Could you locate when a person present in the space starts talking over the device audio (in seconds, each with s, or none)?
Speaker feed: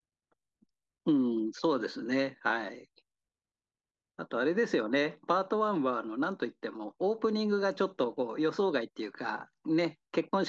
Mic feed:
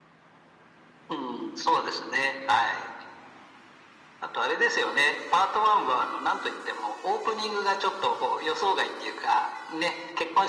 none